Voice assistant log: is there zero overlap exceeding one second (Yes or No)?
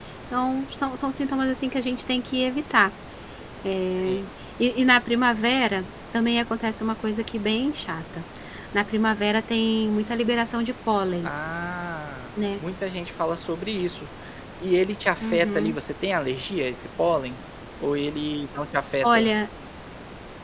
Yes